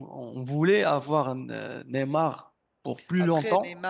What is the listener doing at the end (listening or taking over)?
taking over